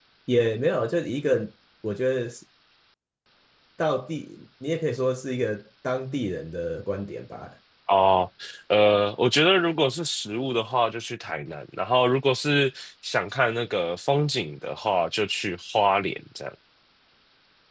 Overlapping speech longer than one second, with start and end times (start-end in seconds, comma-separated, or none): none